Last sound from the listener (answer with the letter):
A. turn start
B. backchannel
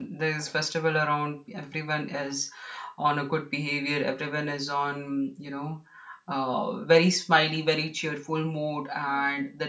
B